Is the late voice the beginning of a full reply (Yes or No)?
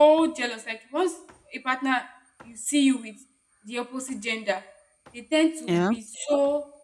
No